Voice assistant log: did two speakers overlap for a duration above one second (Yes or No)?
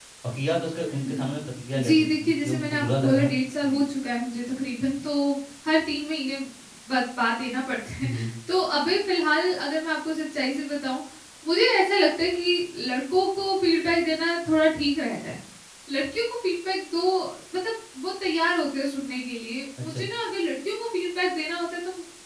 Yes